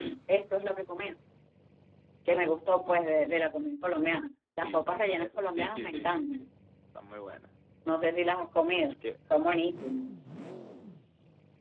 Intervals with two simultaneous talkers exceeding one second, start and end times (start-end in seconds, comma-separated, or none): 4.6-6.5